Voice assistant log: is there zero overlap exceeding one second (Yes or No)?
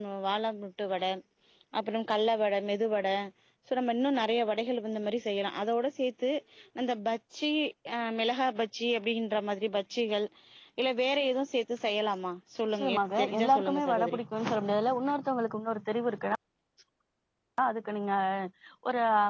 No